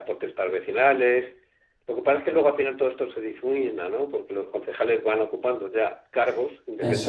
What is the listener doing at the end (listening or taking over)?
listening